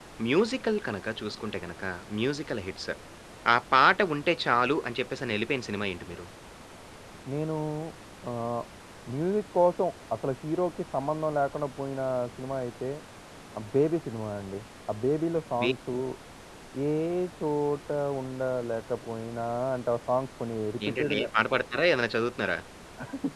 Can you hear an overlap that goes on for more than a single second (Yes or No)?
No